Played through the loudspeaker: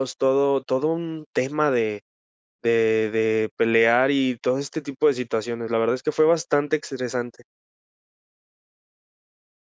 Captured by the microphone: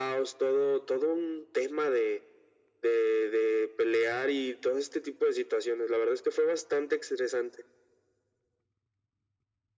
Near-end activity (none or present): none